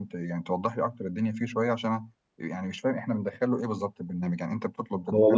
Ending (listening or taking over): taking over